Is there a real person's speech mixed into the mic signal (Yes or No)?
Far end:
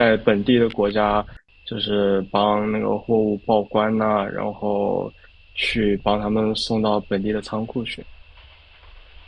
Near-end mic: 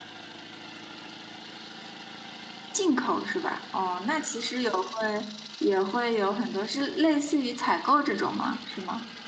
Yes